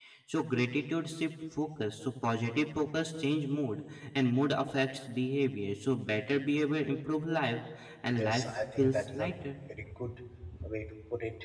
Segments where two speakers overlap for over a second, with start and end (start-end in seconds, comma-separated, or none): 8.1-9.5